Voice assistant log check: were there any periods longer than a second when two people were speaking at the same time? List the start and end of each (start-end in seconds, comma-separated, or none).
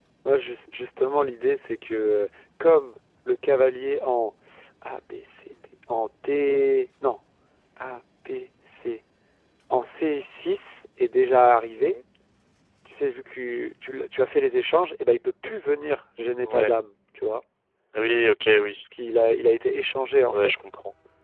none